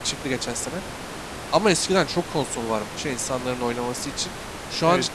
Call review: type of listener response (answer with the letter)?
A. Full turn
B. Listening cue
B